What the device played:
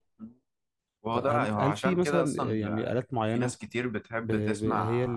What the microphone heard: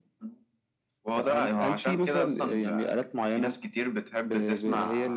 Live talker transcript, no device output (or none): none